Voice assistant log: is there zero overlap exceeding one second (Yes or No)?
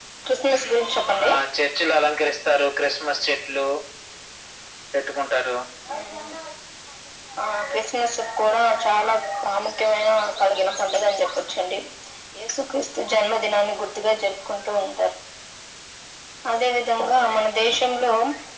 Yes